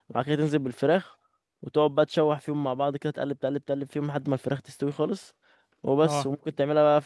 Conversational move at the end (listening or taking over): listening